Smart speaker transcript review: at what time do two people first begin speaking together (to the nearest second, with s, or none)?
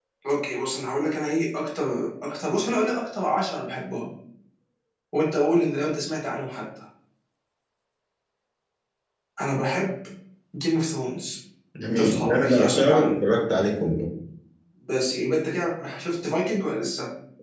12 s